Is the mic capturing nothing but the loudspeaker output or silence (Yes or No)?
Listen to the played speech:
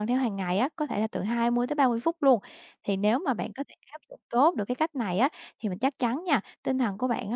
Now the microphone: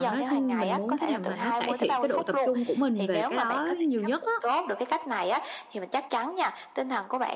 No